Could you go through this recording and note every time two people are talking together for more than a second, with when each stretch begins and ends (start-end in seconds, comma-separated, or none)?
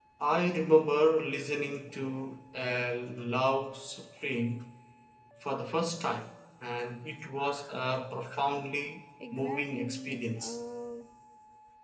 9.3-10.6